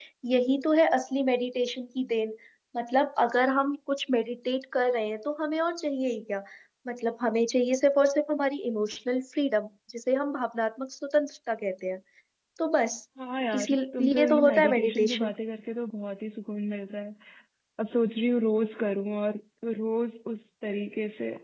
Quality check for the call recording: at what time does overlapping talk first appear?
14 s

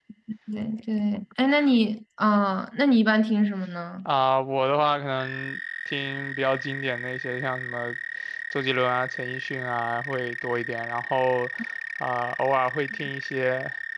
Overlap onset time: none

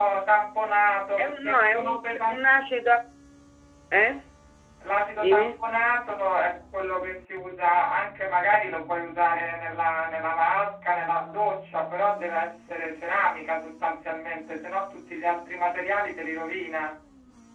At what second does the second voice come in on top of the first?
1 s

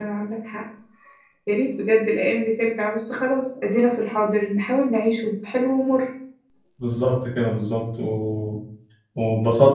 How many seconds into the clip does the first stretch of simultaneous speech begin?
none

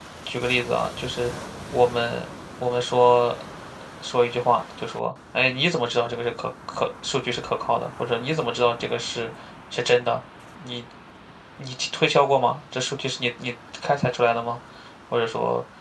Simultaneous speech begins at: none

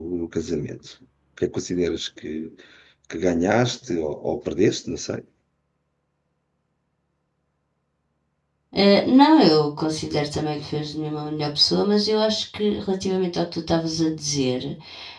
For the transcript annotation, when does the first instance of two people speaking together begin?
none

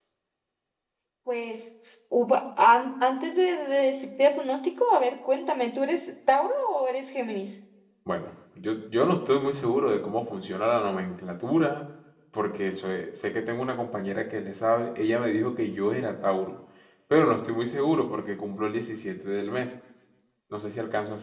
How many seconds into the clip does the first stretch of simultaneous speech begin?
none

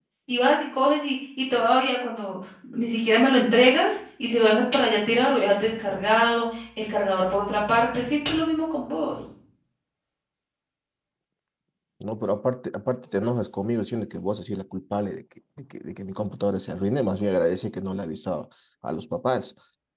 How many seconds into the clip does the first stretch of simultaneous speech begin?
none

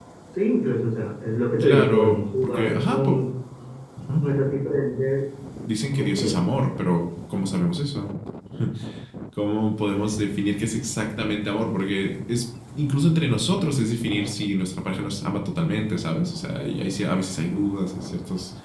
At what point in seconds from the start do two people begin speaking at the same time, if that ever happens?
2 s

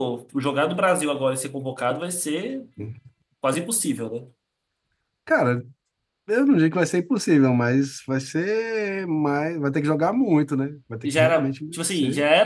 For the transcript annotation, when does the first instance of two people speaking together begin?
11 s

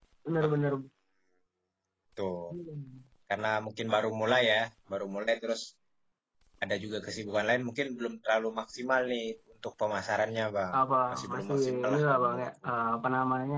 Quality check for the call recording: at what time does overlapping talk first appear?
11 s

